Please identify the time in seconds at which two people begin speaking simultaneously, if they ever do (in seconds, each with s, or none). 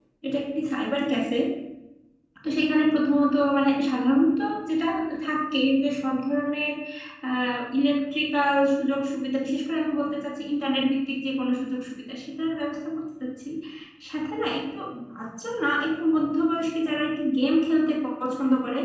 none